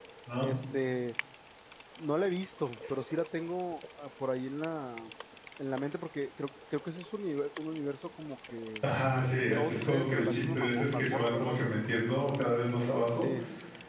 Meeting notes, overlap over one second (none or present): present